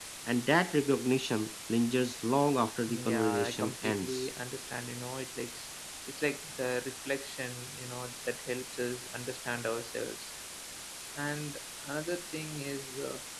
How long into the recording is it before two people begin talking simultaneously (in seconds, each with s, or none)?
2.9 s